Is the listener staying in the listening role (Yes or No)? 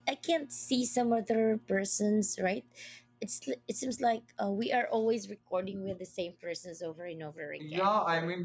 No